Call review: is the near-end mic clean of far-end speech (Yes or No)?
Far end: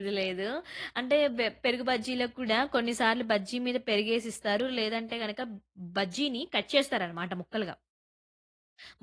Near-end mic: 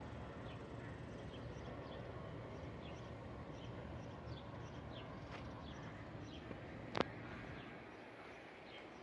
Yes